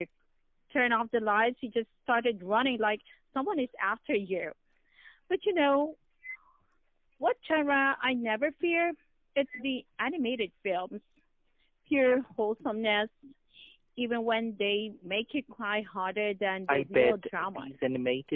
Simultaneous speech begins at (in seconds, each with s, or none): 16.7 s